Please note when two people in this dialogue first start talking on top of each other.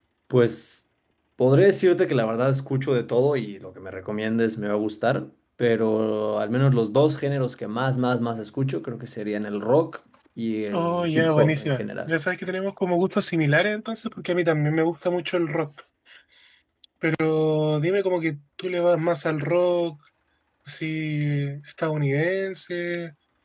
11 s

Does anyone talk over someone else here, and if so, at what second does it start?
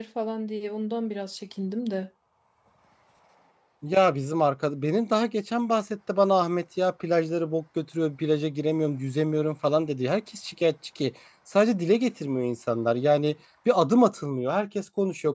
none

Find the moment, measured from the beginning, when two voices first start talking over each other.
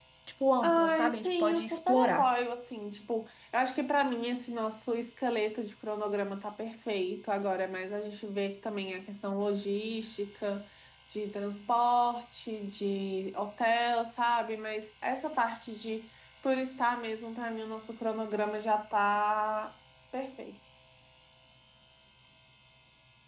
1 s

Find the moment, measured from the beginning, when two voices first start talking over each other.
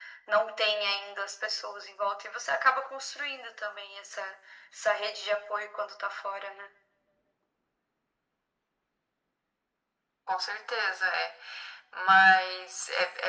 none

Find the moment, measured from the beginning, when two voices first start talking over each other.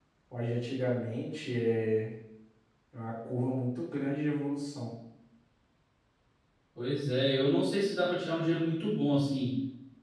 none

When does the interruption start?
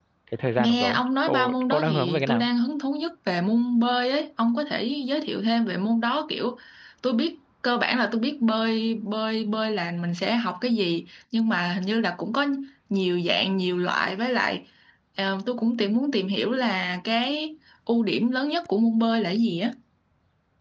1 s

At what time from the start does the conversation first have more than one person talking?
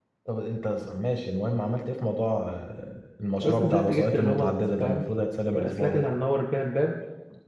3 s

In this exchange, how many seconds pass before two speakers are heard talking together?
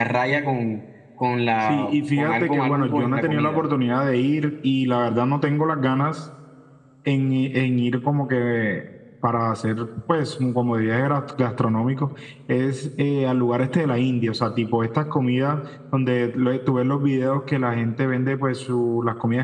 2 s

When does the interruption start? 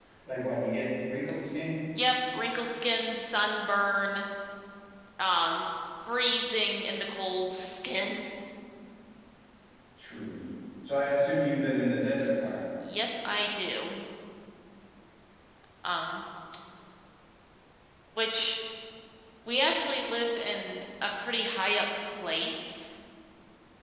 none

